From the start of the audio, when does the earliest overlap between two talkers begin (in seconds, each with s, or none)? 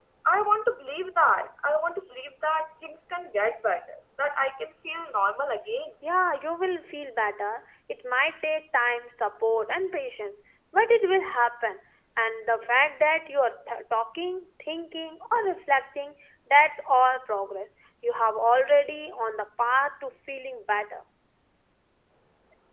none